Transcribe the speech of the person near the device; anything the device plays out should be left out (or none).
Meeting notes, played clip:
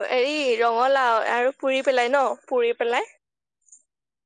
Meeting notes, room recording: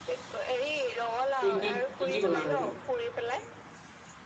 কি কি কি কি বনালে আজি